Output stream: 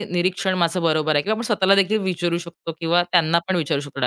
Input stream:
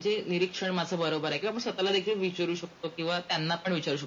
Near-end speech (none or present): none